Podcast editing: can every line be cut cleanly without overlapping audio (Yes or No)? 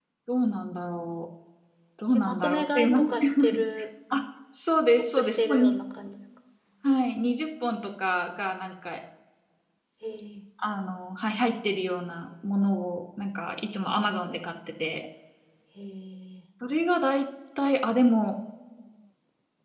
No